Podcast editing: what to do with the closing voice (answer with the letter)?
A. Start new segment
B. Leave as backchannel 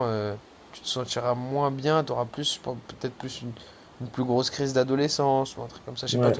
A